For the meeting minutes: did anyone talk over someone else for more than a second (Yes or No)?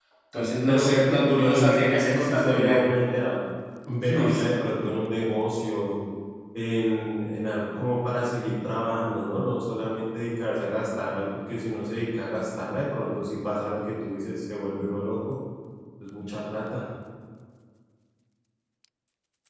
Yes